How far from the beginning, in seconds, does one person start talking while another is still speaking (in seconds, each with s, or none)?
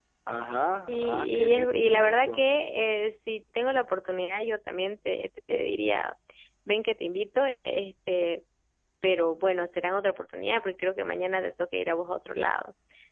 0.9 s